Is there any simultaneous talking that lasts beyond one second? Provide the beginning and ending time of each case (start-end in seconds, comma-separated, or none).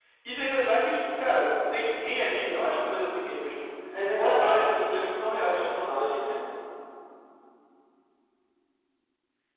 4.2-5.6